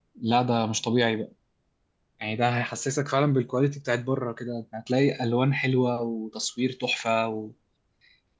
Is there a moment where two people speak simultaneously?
No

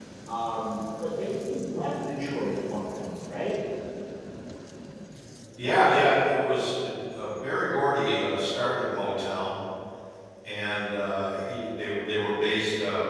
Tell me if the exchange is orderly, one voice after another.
Yes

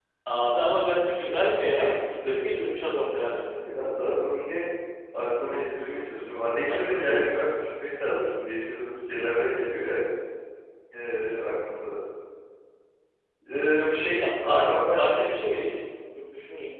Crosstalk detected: Yes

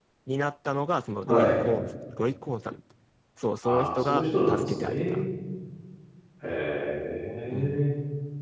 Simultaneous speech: Yes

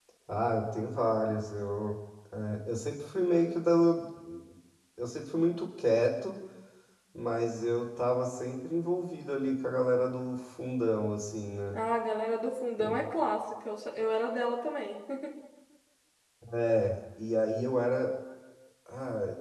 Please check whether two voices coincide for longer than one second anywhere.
No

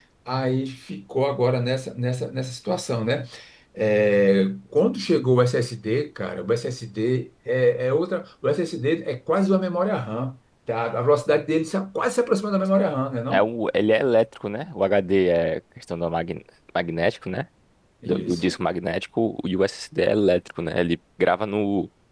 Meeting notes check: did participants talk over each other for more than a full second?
No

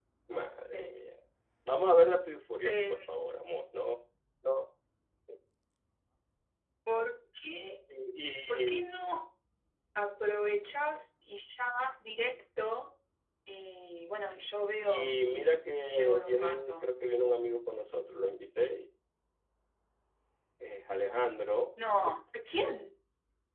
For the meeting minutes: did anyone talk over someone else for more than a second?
Yes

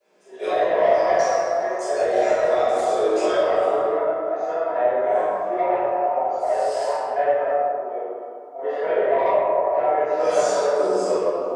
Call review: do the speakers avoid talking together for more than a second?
No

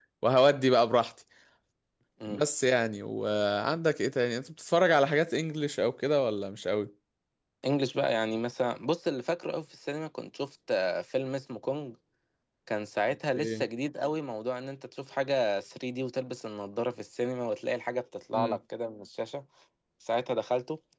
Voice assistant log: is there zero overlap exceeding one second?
Yes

